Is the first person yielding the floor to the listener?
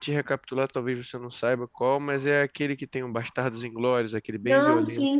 Yes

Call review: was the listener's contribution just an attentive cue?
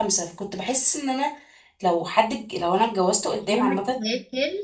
No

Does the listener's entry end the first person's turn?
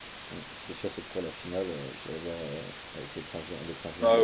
Yes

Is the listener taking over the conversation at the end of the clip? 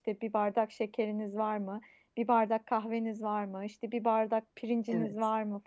No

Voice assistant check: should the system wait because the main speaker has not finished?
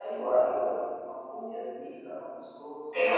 No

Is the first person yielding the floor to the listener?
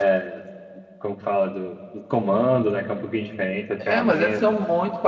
Yes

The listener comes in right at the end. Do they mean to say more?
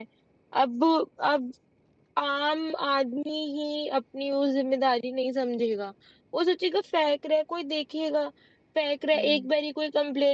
No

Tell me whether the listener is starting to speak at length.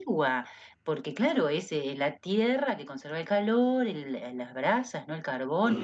No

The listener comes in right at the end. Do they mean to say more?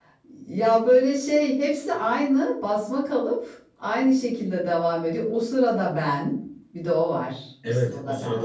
Yes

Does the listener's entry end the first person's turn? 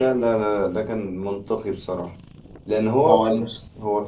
No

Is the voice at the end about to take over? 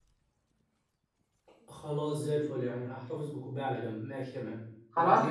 Yes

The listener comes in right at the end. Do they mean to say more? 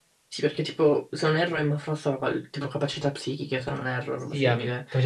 Yes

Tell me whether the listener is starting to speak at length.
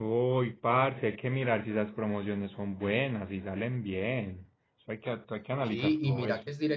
Yes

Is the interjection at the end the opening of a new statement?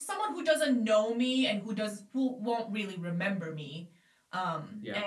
No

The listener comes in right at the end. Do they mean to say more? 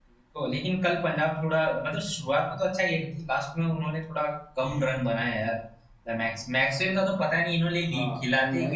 Yes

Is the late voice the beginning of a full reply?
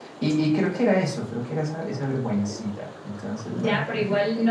Yes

